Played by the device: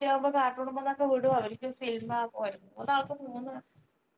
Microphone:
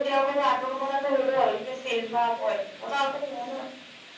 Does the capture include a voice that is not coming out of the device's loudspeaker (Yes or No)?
No